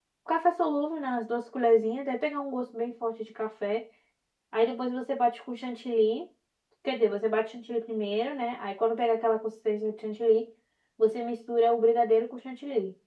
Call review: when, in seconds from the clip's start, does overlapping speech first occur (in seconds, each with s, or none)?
none